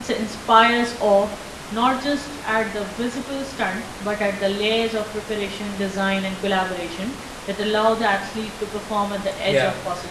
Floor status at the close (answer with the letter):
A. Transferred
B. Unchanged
A